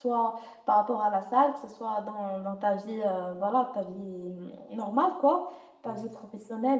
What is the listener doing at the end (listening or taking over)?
listening